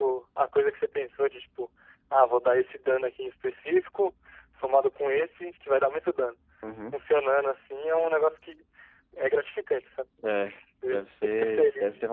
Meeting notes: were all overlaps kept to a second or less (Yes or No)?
No